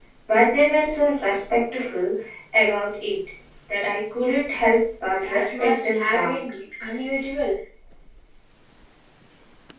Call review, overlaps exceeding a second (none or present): present